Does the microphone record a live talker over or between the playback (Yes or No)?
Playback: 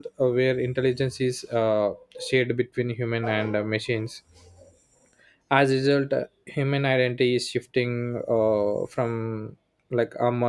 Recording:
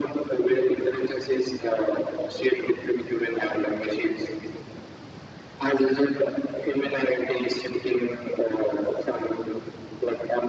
No